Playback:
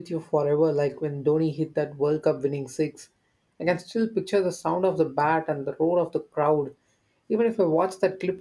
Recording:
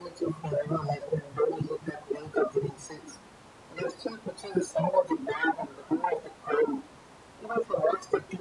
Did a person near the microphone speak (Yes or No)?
No